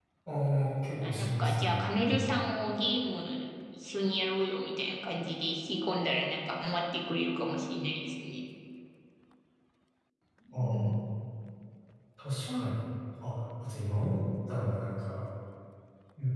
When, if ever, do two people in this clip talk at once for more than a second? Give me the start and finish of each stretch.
1.0-2.3

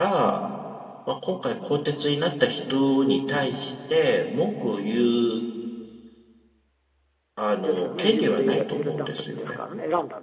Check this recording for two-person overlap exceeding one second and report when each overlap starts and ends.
7.6-9.6

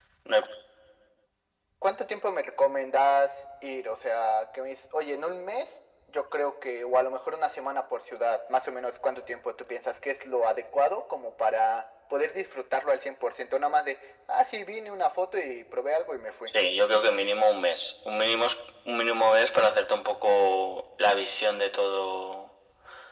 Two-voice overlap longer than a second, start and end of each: none

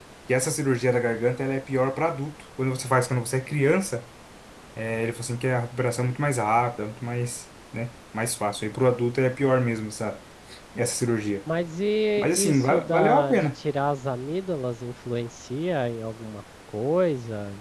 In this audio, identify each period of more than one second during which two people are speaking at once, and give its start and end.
12.2-13.5

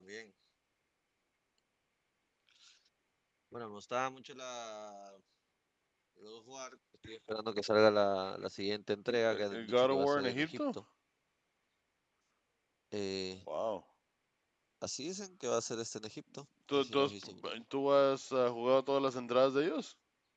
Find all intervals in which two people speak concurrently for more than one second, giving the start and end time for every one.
9.3-10.6

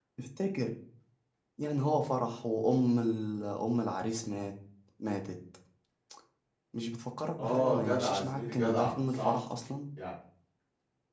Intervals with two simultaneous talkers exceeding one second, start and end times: 7.4-9.4

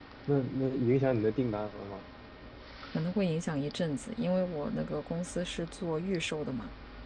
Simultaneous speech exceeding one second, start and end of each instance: none

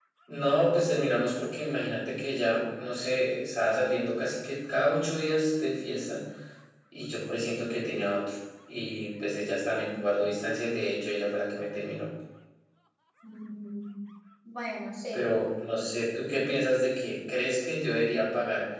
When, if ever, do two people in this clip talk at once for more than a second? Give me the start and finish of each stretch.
none

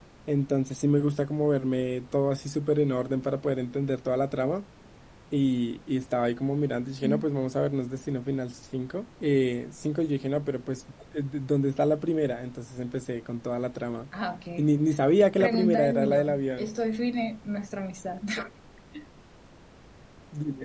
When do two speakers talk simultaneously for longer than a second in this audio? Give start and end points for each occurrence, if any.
15.4-16.7

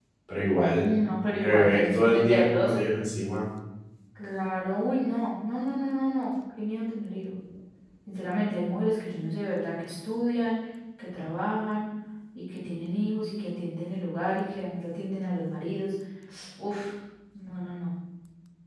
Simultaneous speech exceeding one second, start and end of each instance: 1.3-2.7

